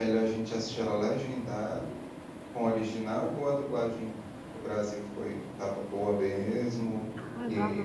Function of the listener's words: taking over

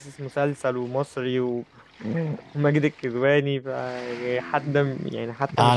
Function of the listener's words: taking over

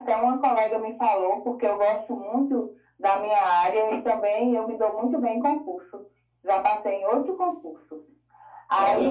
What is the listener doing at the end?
listening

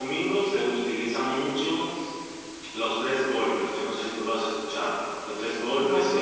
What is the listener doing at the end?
listening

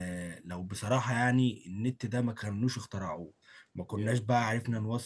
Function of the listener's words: listening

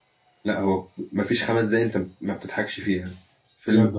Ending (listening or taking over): listening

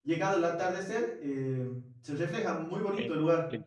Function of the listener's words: taking over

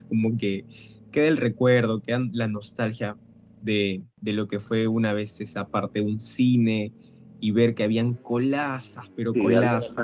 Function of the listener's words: taking over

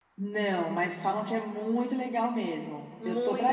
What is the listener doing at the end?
taking over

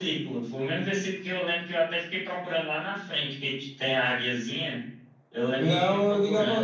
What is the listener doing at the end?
taking over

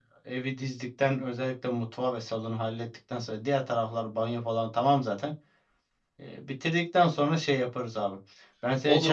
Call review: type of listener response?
taking over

